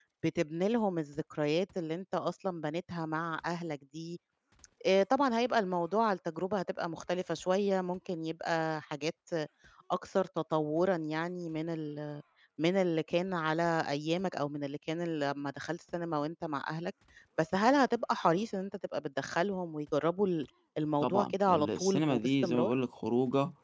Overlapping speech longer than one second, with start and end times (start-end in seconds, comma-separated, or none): 21.0-22.7